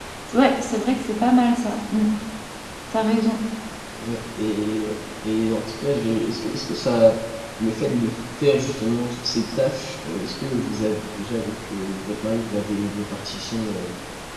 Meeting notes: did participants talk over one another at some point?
No

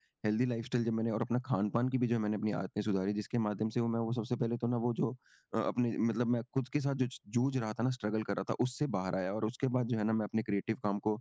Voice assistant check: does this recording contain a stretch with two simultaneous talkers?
No

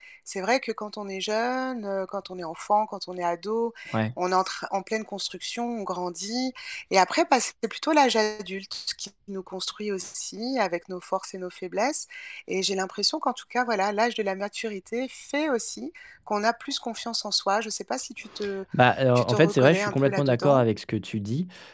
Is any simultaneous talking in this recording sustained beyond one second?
Yes, from 19.2 s

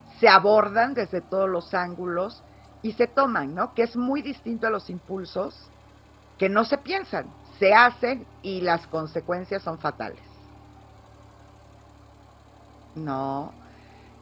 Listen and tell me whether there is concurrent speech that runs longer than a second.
No

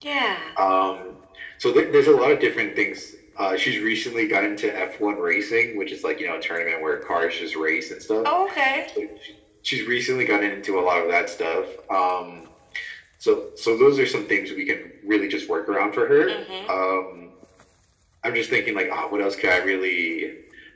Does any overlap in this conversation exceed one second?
No

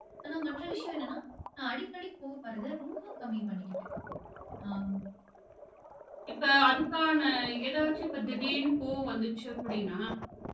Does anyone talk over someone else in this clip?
No

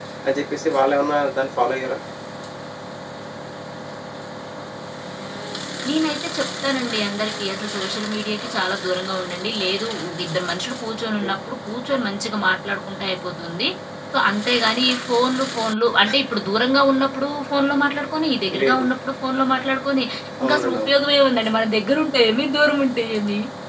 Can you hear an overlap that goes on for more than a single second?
No

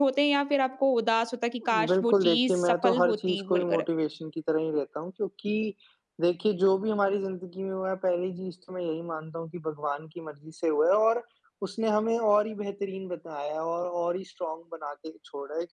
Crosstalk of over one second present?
Yes, from 1.6 s

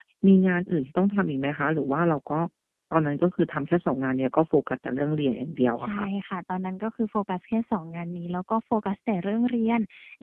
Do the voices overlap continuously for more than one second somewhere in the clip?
No

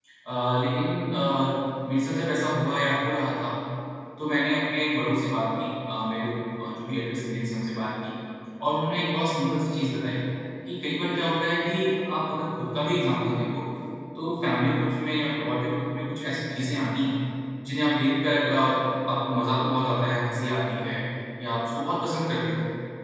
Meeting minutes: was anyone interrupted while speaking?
No

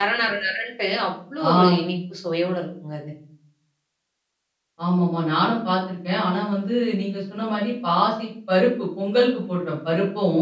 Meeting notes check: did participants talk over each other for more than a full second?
No

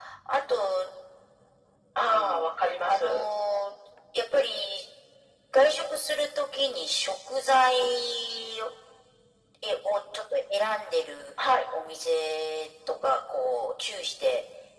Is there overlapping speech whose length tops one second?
Yes, from 2.0 s

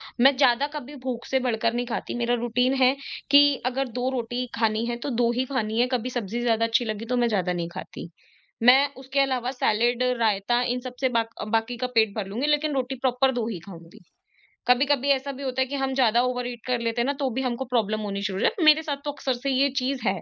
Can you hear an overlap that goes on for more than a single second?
No

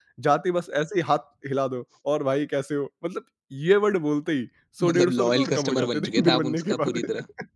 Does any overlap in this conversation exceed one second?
Yes, from 4.8 s

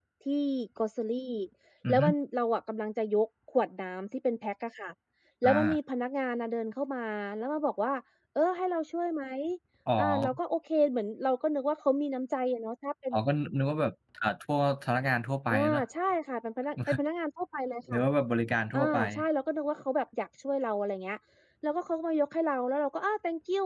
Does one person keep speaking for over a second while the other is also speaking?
No

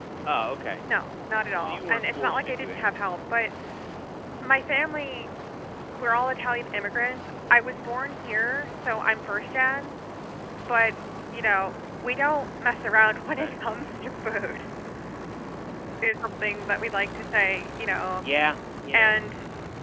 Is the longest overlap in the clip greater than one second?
Yes, from 1.6 s

